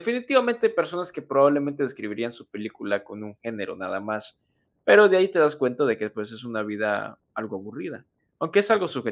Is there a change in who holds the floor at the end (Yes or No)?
No